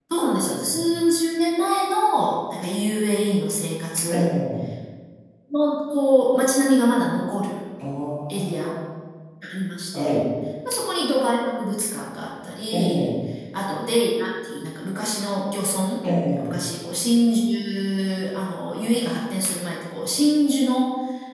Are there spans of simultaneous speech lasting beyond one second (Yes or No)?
No